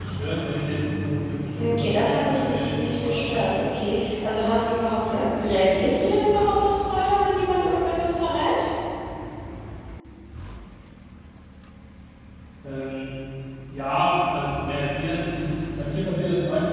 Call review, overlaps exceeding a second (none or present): present